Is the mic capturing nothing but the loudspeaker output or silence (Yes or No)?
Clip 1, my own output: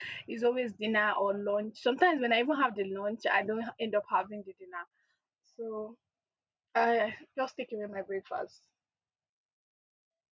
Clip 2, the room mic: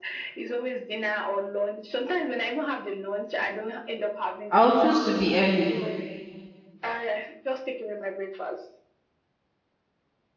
No